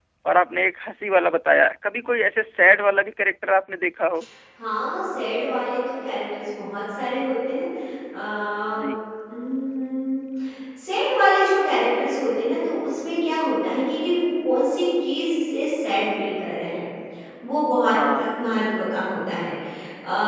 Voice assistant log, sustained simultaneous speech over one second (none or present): none